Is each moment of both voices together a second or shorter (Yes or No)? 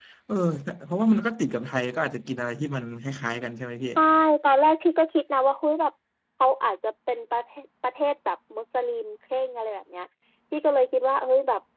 Yes